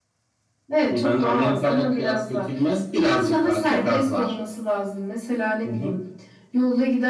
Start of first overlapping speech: 0.9 s

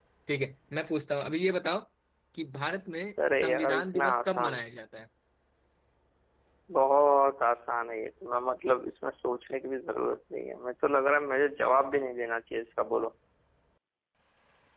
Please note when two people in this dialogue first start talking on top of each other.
3.2 s

